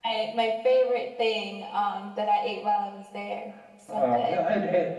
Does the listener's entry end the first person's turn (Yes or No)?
Yes